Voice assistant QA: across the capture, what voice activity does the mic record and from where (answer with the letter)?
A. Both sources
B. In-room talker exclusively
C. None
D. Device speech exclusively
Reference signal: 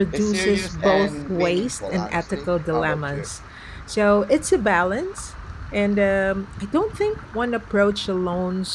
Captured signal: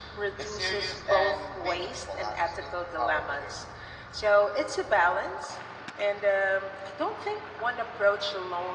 D